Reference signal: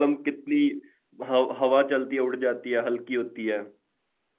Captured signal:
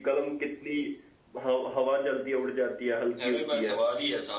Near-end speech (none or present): present